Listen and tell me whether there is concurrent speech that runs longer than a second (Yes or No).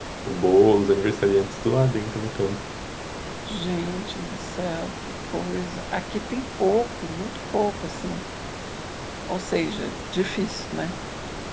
No